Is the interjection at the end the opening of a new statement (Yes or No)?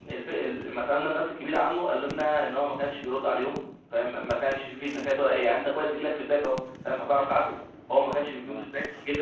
No